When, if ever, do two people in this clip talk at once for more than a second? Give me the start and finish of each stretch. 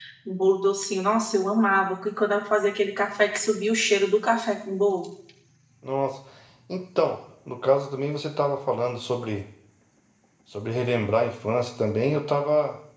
none

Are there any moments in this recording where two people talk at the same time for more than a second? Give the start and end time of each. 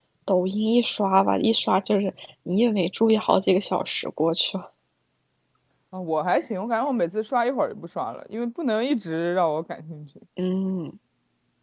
none

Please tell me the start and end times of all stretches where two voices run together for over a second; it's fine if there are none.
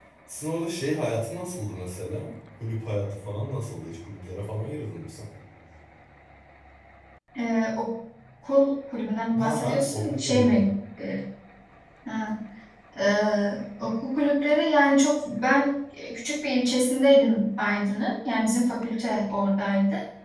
9.4-10.7

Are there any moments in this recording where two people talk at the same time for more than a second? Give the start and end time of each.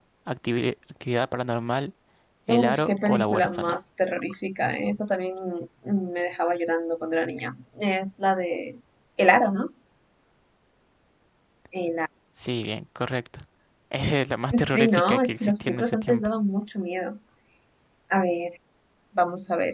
2.5-3.8, 14.7-16.3

